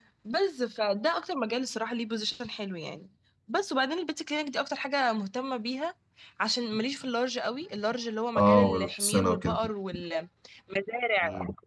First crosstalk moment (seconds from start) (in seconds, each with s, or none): 8.4 s